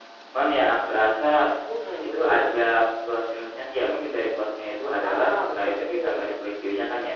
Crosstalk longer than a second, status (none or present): present